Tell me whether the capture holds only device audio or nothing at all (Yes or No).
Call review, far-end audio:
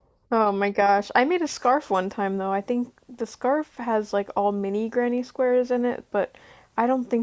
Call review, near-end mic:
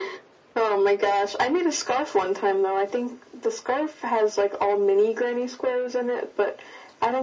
Yes